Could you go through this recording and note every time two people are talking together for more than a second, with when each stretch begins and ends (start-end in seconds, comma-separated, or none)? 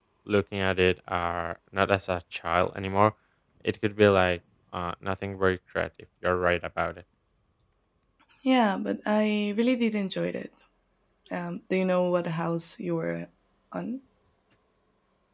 none